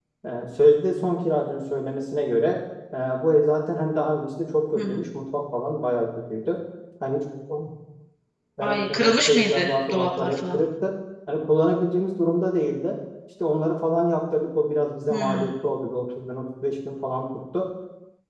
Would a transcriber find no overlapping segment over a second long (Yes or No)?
No